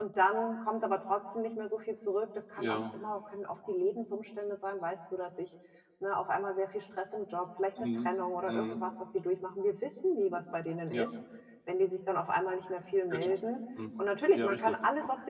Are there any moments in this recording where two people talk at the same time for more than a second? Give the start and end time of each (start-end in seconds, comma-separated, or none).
none